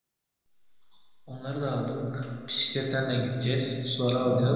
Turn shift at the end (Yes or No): No